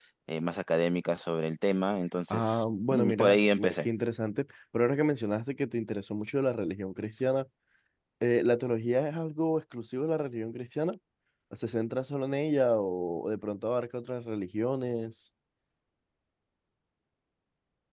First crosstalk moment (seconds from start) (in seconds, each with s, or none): 2.3 s